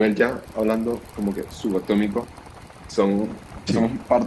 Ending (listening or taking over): listening